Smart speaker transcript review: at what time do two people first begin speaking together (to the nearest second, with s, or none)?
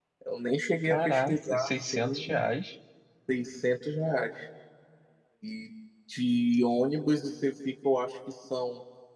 1 s